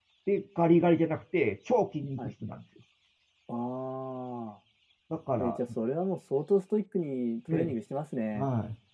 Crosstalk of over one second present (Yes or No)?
No